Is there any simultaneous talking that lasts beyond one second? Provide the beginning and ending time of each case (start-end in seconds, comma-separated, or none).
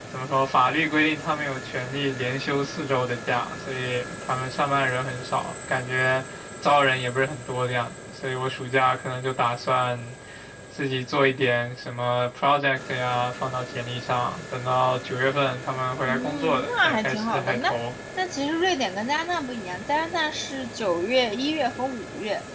16.1-17.7